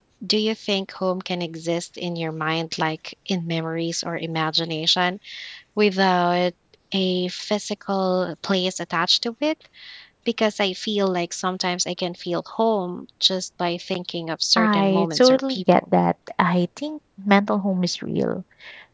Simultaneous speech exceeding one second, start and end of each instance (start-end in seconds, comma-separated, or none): 14.6-15.8